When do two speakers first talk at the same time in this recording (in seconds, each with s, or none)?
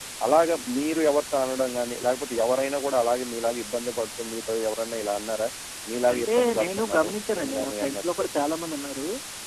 6.1 s